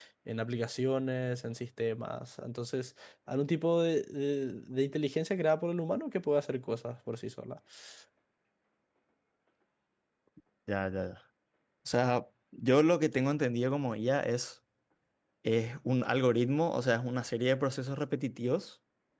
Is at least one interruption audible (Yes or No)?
No